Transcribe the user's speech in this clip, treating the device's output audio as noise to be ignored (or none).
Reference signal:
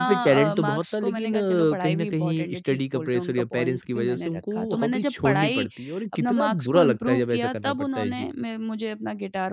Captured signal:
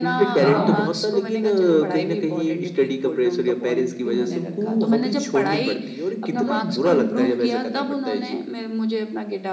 हाँ,